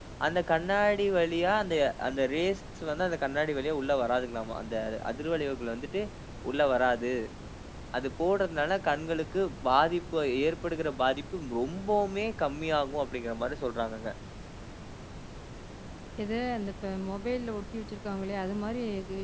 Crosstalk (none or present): none